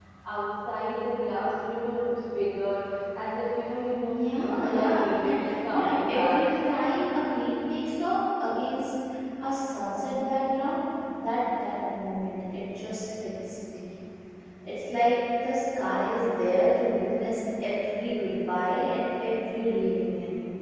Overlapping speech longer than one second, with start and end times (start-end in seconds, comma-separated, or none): 4.1-6.5